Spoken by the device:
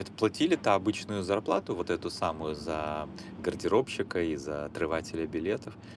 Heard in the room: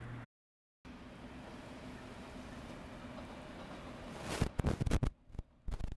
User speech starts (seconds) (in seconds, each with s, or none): none